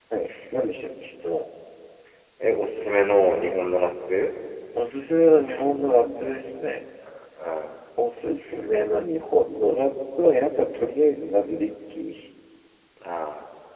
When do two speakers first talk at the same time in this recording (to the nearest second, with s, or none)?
none